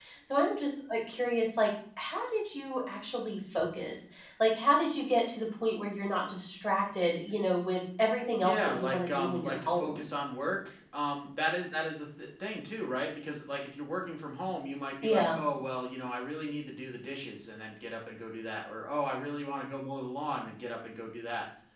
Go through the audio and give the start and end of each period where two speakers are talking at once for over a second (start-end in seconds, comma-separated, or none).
8.4-10.0